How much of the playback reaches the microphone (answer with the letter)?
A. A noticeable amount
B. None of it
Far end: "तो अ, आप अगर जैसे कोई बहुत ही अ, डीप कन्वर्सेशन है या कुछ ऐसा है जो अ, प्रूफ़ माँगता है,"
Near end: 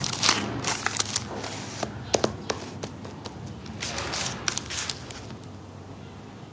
B